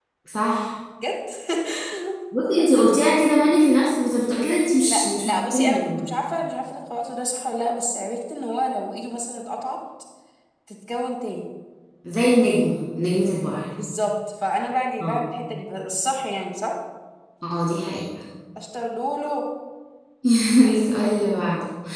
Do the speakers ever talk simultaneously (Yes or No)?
Yes